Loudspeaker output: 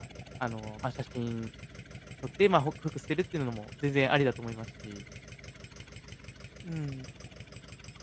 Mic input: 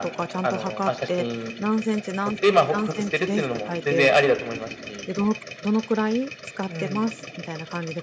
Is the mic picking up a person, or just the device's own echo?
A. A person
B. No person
A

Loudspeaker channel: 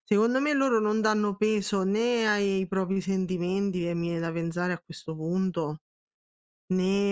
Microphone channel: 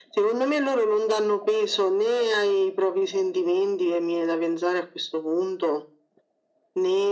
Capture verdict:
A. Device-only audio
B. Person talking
A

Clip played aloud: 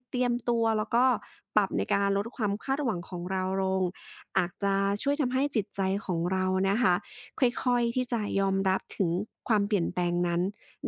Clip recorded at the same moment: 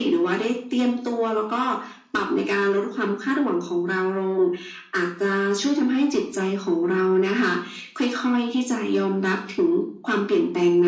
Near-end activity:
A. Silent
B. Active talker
A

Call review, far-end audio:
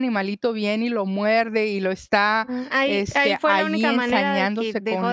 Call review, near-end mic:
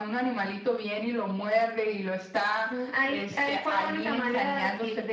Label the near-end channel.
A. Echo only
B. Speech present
A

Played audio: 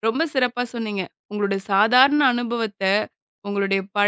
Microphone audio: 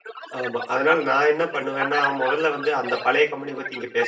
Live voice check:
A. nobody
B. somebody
B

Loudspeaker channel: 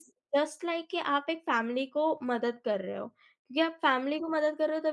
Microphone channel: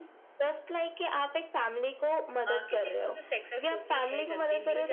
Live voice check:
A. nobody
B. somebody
B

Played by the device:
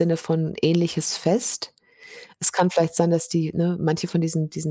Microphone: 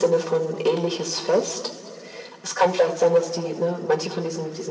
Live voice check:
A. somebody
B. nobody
B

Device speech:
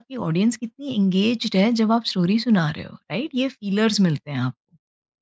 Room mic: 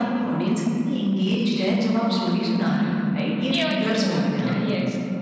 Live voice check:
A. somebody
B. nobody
A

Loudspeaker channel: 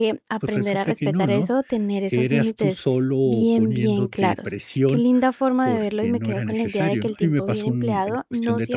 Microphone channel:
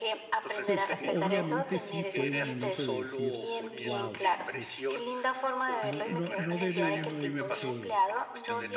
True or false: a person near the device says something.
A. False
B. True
B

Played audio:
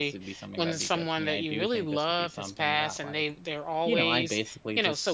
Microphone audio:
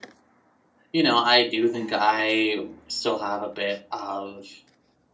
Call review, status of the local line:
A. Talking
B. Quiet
A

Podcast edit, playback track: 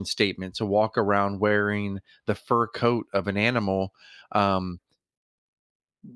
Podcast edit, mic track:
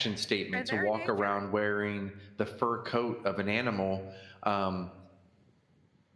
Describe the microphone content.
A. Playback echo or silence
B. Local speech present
B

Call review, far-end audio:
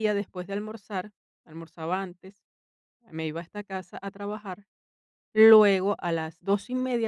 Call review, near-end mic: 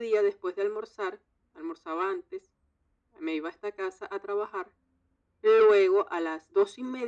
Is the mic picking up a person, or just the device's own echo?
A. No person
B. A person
A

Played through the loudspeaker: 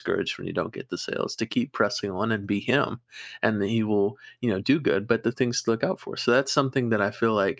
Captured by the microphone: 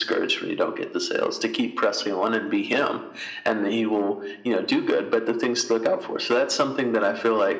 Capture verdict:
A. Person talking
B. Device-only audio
B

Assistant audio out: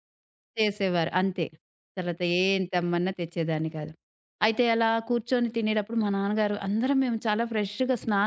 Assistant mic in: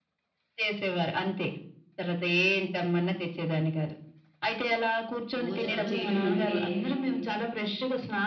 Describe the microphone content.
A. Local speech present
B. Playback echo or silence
A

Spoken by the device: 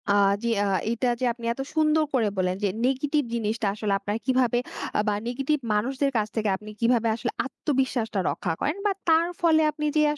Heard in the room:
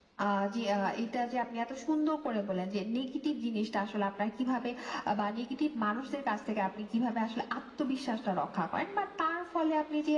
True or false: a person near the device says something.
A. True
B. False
B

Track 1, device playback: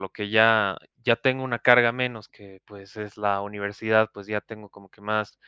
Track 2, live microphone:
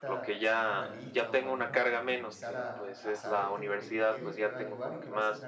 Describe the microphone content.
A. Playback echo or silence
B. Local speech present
B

